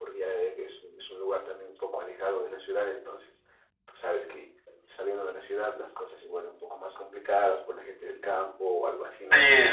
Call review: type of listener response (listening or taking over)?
taking over